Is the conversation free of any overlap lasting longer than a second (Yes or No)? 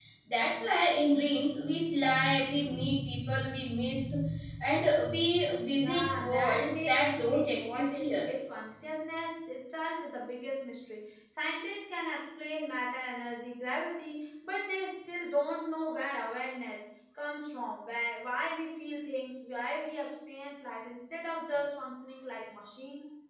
No